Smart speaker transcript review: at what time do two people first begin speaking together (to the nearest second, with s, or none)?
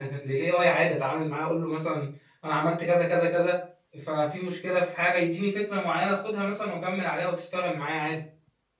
none